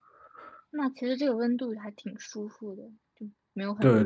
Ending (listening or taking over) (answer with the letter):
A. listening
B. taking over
B